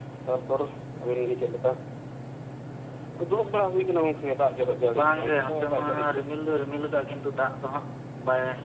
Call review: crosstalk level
present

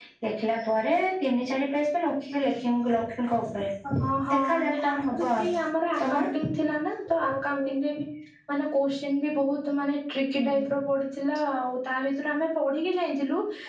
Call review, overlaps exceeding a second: present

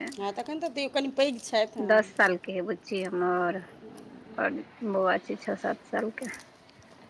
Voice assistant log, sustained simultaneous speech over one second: none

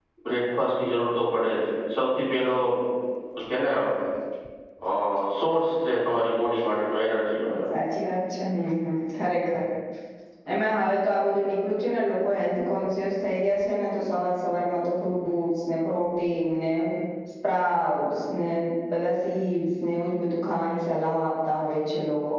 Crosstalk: none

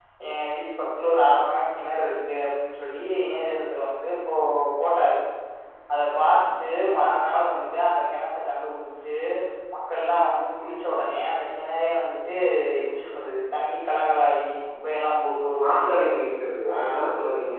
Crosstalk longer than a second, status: none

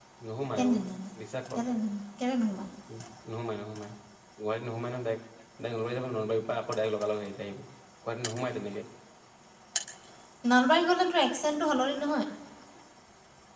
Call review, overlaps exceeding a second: none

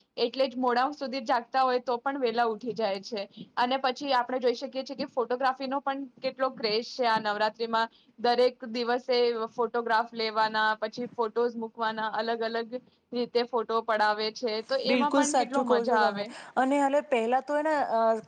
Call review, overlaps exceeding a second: present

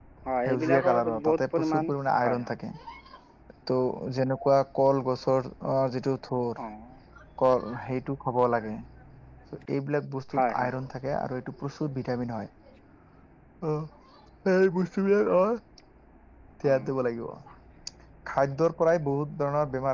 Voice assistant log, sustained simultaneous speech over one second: present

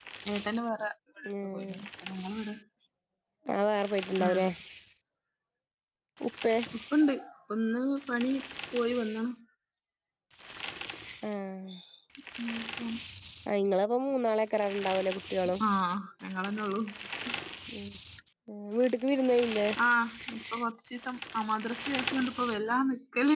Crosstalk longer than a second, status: none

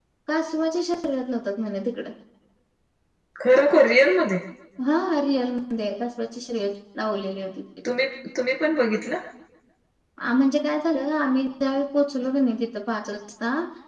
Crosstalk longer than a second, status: none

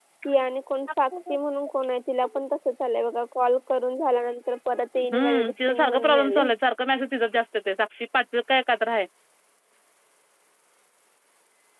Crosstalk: present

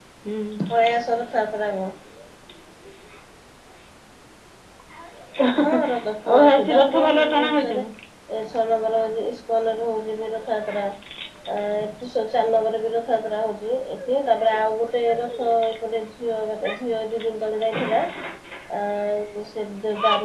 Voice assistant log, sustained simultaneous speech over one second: present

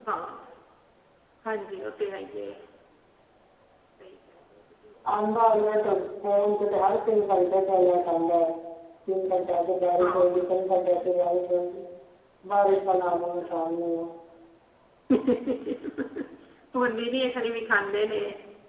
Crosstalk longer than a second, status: none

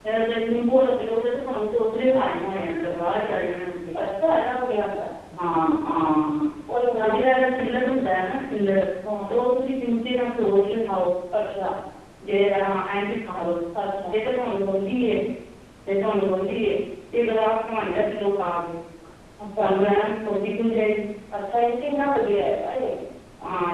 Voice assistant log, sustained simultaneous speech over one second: none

